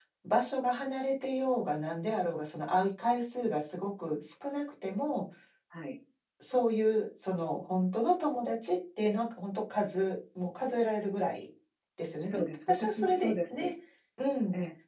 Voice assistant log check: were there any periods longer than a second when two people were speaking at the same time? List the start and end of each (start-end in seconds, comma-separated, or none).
12.2-13.7